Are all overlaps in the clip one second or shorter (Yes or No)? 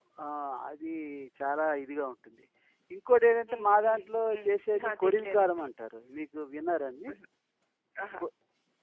No